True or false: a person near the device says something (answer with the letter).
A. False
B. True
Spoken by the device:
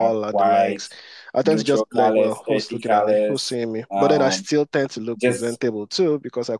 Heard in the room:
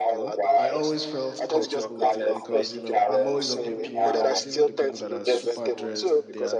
B